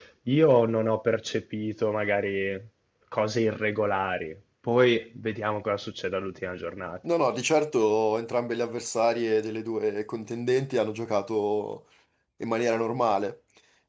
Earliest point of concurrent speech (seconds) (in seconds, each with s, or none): none